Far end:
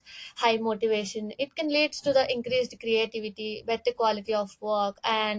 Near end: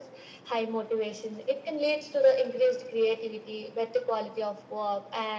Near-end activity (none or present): none